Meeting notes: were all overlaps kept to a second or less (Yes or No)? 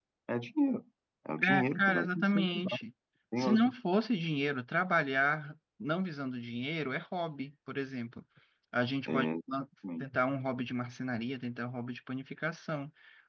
No